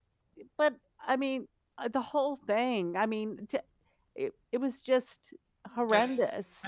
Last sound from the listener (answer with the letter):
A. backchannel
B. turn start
B